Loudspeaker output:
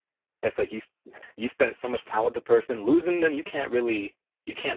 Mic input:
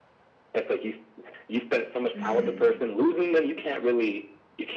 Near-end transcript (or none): Mhm.